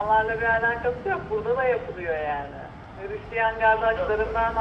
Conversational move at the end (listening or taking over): listening